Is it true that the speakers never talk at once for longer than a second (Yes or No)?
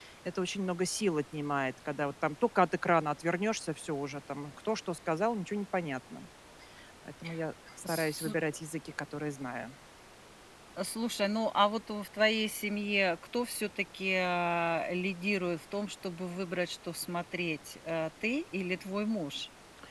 Yes